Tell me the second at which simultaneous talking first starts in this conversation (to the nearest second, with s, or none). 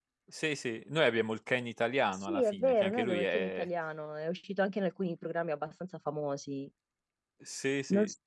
2 s